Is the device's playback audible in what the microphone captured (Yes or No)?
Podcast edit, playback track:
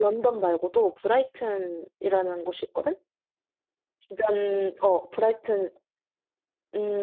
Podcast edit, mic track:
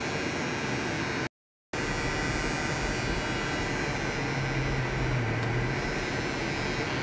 No